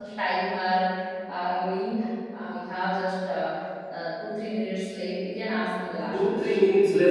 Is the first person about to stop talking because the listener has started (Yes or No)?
Yes